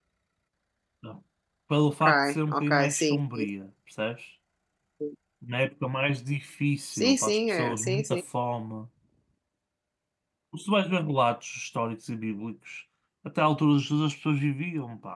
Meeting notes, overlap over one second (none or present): present